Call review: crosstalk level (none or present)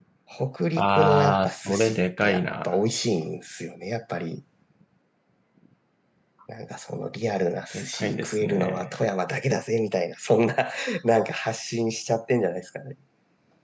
present